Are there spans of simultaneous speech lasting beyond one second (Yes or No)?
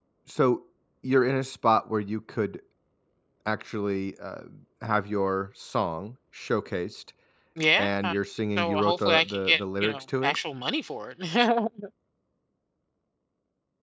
Yes